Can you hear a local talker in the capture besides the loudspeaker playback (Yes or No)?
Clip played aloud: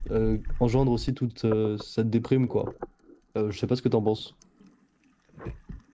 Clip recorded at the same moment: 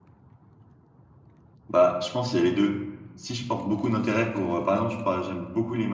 Yes